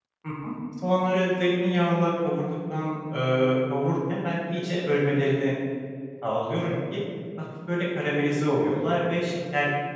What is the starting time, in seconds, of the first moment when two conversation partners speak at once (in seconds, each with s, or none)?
none